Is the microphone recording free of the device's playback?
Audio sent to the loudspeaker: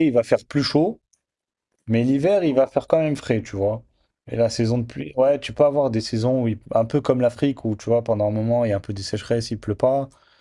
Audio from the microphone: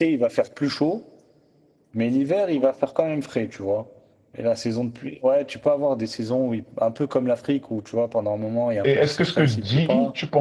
No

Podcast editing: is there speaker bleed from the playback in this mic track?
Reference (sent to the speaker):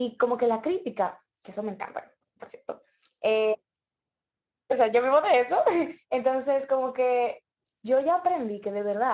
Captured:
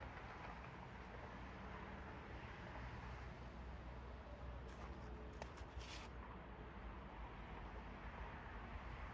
No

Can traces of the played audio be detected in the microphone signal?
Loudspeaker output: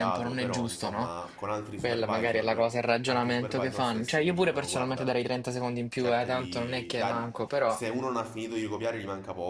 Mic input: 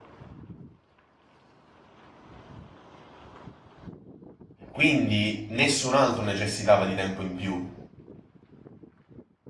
No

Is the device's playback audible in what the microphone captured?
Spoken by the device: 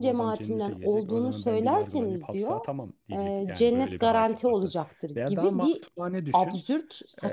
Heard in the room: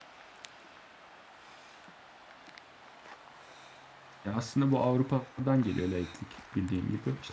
No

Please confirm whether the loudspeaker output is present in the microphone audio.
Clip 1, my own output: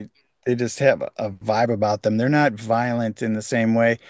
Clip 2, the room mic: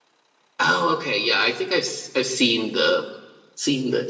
No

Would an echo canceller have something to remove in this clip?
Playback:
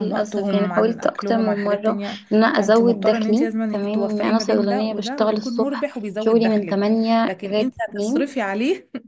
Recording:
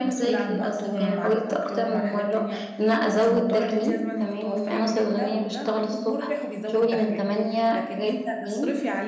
Yes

